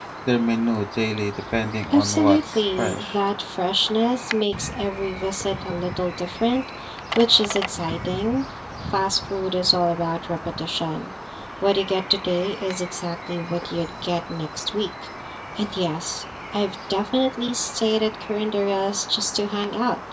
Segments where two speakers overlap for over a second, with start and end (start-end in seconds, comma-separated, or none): 1.9-3.2